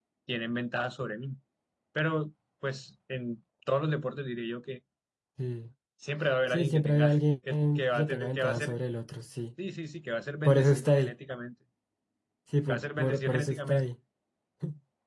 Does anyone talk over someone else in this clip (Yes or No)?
Yes